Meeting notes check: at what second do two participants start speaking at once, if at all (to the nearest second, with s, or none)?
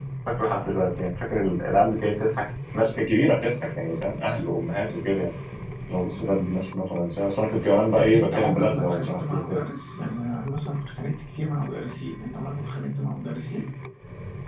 8 s